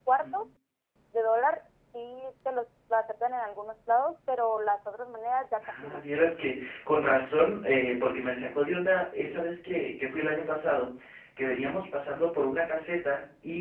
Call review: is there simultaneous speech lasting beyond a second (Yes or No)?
No